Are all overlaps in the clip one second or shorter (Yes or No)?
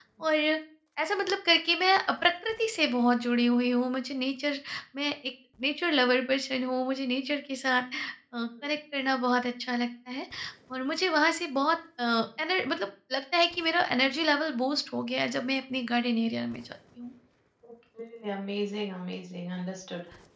Yes